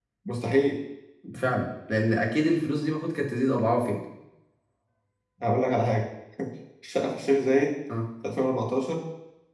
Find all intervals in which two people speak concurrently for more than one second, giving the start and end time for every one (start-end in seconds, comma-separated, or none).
none